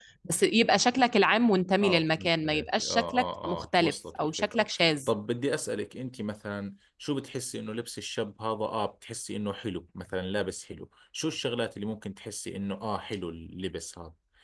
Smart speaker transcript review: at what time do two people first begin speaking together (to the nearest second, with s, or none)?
2 s